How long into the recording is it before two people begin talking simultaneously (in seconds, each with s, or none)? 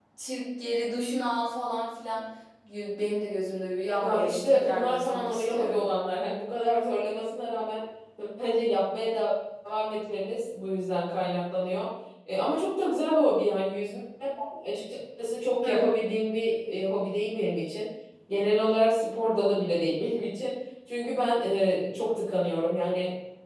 4.0 s